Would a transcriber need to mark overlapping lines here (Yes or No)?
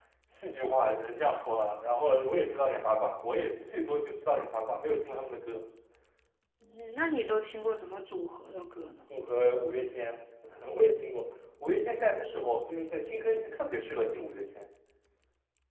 No